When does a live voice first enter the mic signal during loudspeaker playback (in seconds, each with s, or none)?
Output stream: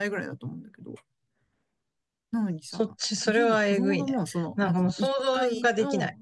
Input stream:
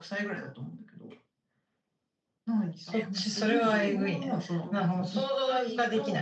3.0 s